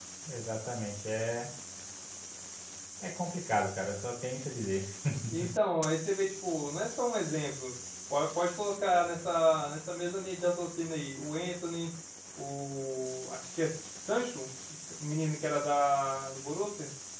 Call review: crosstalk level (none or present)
none